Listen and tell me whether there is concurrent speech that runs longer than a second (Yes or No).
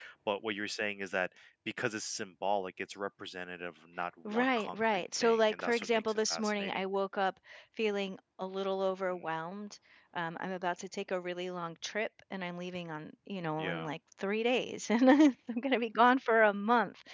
Yes